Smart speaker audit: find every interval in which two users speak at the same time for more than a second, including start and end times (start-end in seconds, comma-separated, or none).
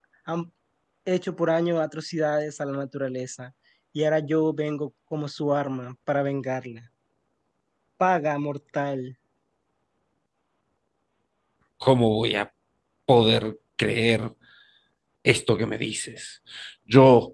none